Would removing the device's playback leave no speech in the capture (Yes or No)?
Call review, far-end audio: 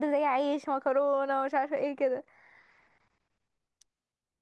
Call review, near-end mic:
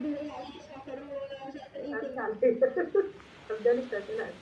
No